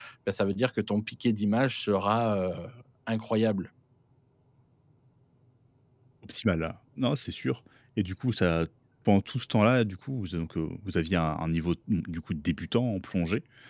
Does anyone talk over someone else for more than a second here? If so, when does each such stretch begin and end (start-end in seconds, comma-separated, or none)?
none